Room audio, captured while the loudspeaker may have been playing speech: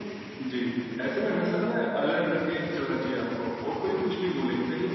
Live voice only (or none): none